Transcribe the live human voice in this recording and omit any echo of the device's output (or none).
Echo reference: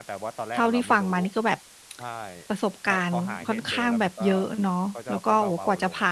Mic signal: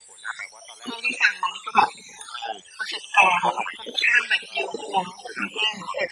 none